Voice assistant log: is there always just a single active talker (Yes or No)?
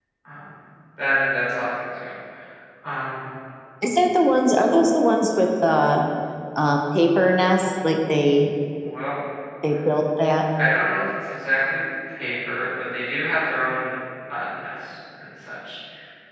Yes